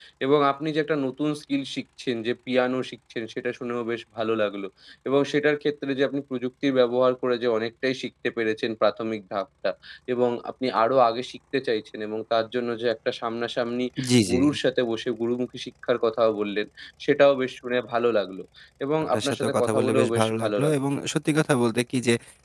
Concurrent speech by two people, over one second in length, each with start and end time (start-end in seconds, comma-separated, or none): 19.0-20.7